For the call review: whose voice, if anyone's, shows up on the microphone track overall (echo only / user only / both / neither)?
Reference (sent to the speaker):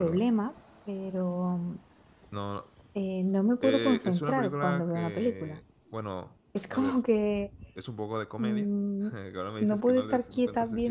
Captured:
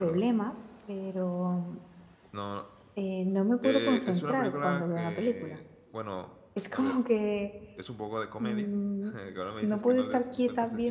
echo only